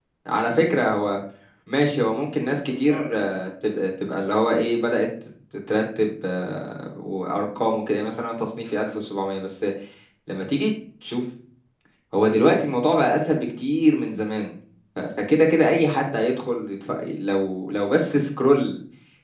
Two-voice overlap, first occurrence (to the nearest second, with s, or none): 2 s